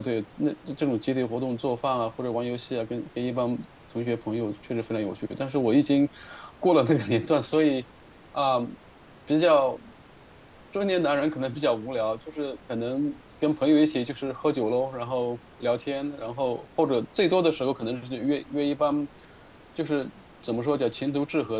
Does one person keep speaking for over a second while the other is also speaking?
No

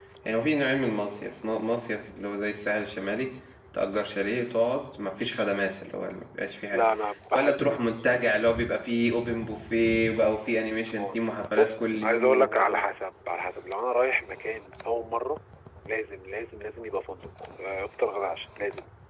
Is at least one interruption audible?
Yes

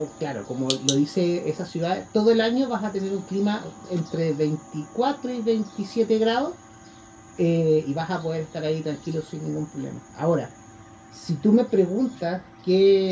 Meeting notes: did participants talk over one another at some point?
No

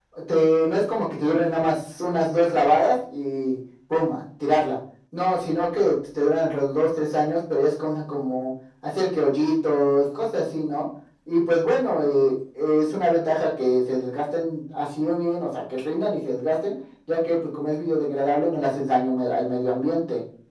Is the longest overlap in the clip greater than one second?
No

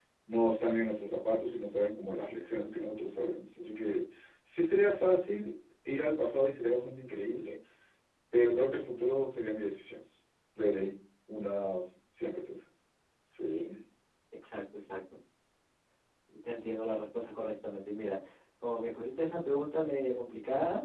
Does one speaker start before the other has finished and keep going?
No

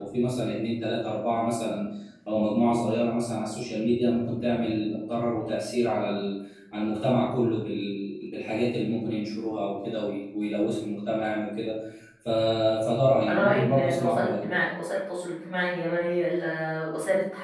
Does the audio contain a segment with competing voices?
Yes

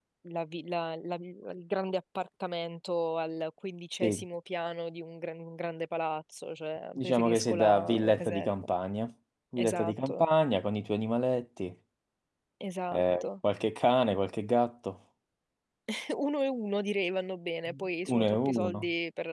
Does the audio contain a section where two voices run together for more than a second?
Yes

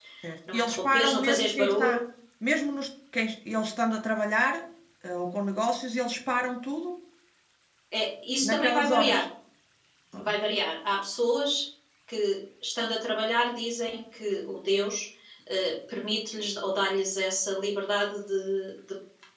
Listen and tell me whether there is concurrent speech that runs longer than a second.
Yes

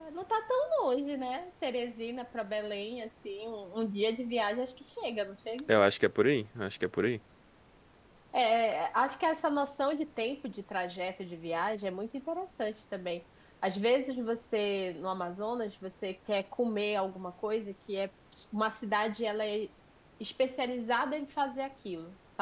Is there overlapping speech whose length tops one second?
No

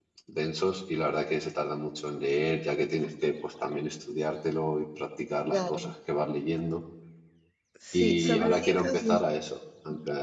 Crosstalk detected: Yes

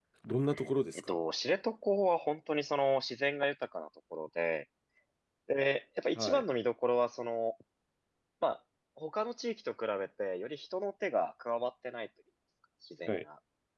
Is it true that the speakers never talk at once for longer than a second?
Yes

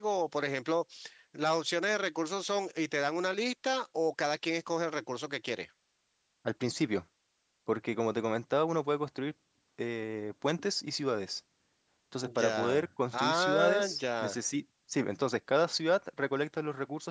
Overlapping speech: Yes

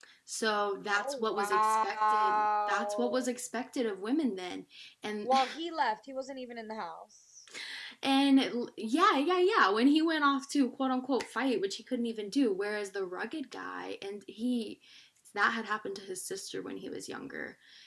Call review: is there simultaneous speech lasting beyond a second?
Yes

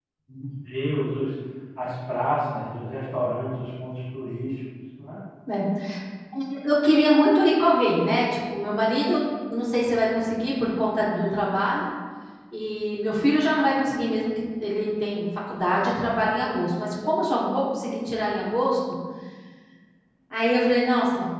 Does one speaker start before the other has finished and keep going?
No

